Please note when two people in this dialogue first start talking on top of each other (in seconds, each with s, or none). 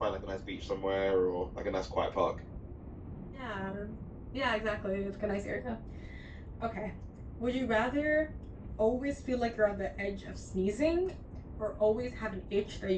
none